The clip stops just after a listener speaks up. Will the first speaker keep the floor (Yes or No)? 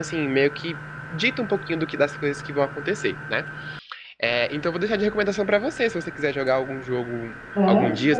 Yes